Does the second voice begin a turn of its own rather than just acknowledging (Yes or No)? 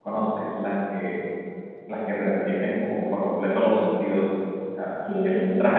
No